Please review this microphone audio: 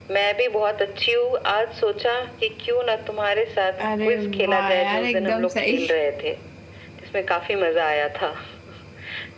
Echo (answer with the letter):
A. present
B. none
A